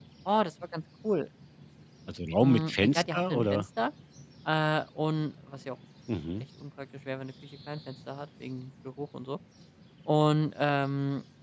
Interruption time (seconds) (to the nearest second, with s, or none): 2 s